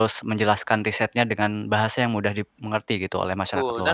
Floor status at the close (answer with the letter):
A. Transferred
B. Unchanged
A